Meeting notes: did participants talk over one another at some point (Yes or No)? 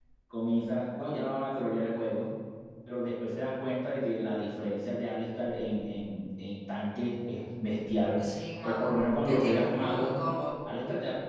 Yes